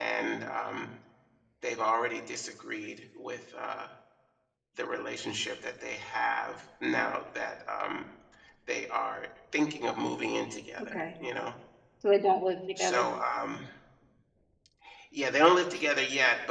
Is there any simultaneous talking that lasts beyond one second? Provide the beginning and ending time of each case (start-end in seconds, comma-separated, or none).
none